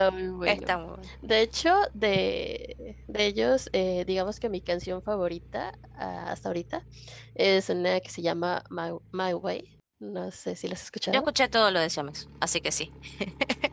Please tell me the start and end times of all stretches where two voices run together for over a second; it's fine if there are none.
none

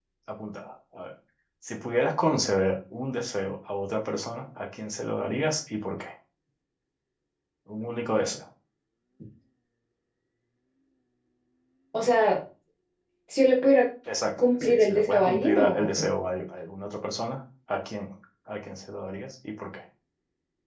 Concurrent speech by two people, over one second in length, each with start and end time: 14.6-16.1

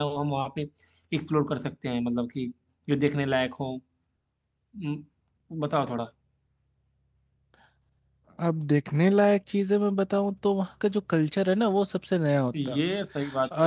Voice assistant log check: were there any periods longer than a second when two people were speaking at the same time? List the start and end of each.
none

